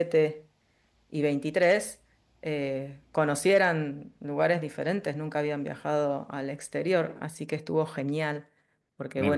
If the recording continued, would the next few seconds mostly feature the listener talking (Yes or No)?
No